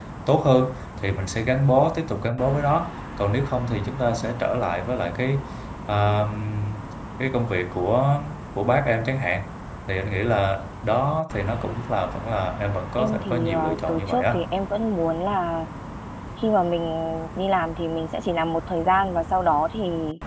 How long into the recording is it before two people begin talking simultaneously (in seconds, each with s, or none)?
13.0 s